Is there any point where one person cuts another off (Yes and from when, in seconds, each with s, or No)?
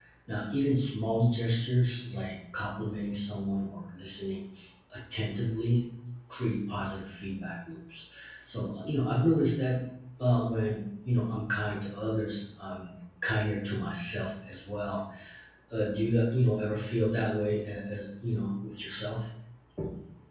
No